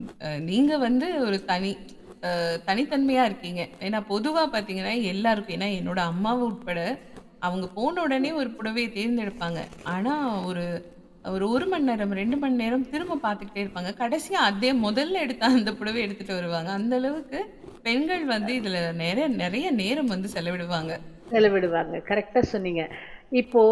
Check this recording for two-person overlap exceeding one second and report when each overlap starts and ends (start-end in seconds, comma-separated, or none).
none